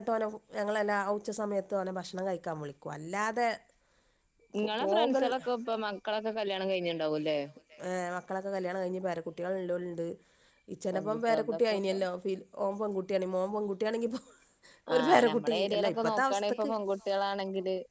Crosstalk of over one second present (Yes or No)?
Yes